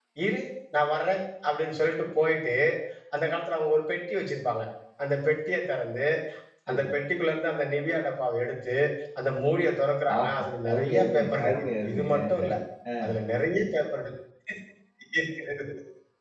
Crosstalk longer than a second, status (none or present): present